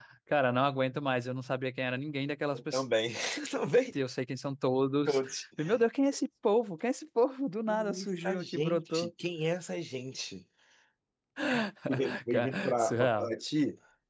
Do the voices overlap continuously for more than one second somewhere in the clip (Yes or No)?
Yes